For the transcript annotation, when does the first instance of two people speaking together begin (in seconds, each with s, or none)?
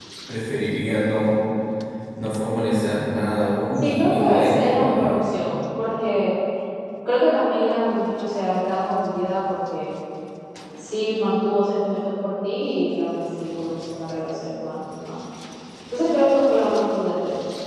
3.7 s